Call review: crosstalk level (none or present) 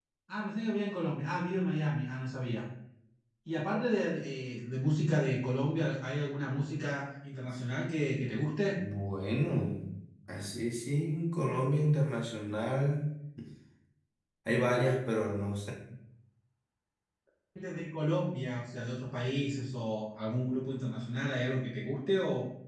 none